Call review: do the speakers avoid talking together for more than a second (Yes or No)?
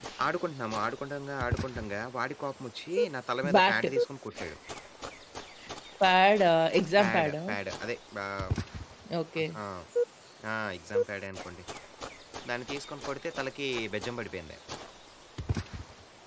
Yes